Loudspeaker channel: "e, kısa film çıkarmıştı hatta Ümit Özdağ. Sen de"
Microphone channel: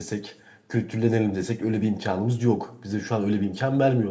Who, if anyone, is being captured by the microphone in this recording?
user only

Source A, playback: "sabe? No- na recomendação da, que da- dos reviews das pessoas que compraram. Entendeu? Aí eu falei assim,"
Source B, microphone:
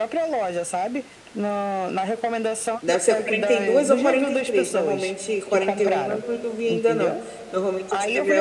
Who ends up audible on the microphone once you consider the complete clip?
both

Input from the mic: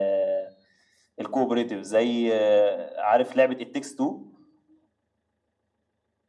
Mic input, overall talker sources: echo only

